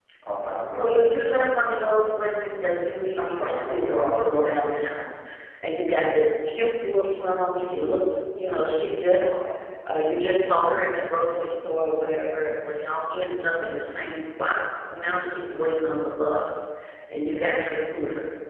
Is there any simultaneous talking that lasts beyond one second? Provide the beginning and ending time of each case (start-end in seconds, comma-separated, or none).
3.4-4.7